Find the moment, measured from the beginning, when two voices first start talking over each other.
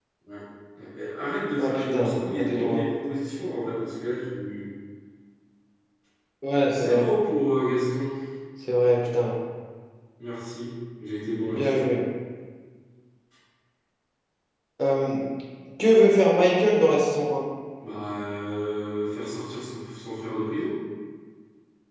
1.6 s

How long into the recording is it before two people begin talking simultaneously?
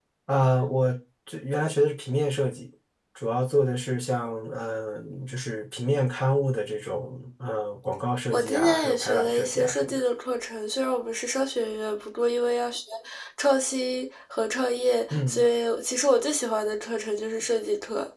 8.3 s

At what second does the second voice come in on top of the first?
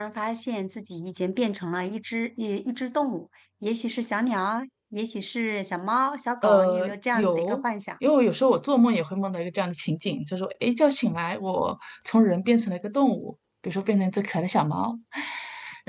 6.4 s

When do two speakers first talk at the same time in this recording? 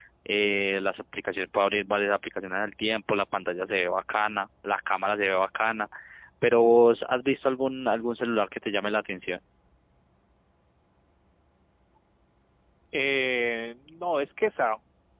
none

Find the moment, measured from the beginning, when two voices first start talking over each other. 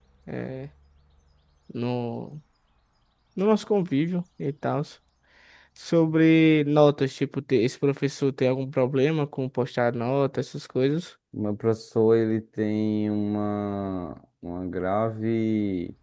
none

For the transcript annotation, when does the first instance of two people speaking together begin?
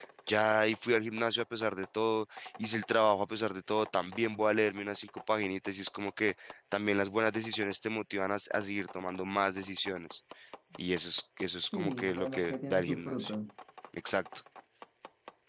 11.7 s

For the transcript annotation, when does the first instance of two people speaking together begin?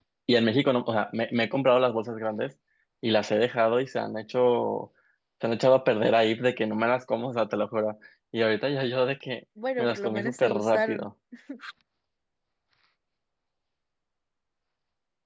9.6 s

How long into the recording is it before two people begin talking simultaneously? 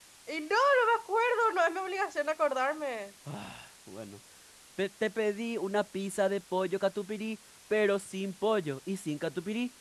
none

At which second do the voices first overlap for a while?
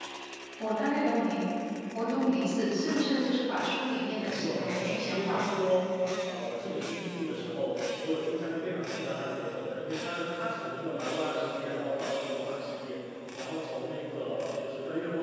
4.3 s

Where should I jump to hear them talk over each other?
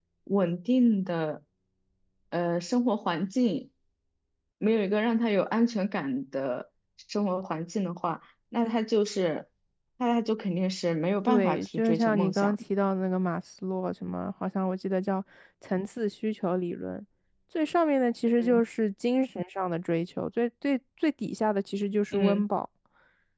11.3 s

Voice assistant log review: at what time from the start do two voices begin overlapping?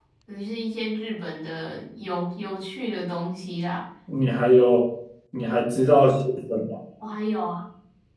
none

